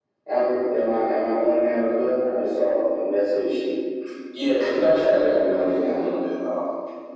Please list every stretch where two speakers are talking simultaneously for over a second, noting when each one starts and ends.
4.7-6.0

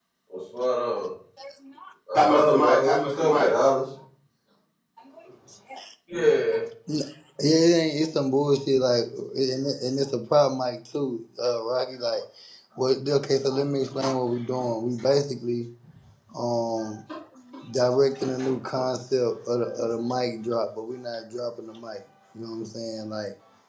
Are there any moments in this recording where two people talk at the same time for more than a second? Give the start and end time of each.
2.1-3.5

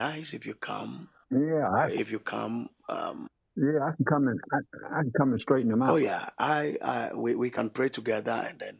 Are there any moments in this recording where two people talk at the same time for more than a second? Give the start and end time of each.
none

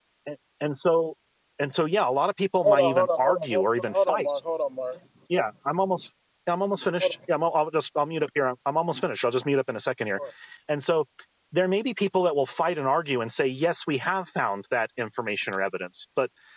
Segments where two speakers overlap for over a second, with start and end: 2.6-4.3

